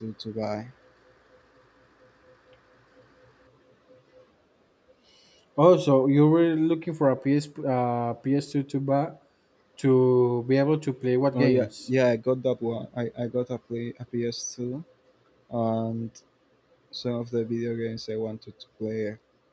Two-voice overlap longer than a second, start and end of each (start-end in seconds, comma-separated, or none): none